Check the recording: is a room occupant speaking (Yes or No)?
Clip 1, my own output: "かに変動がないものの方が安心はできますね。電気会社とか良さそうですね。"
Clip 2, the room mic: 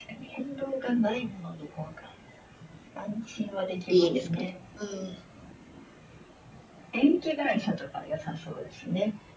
Yes